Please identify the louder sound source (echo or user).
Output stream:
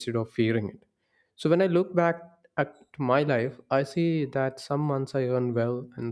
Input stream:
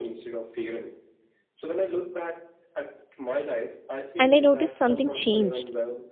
user